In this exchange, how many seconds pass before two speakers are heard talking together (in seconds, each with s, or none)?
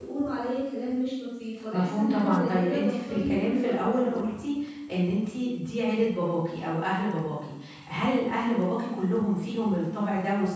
1.7 s